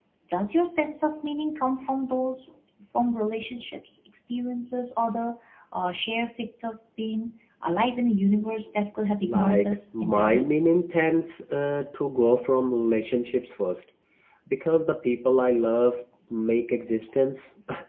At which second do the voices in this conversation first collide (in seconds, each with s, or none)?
9.2 s